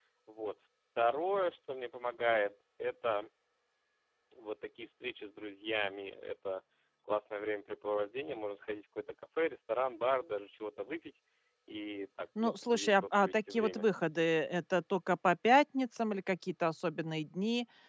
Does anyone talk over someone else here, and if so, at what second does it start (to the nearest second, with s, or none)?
12 s